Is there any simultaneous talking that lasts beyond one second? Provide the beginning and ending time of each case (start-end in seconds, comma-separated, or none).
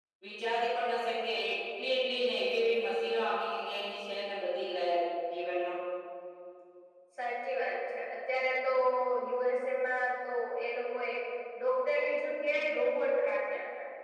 none